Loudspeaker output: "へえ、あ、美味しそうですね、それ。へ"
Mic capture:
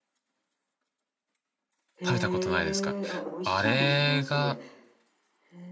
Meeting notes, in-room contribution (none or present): present